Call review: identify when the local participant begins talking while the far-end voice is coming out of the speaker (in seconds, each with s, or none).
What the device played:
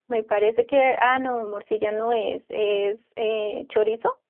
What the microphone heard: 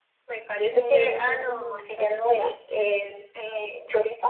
0.7 s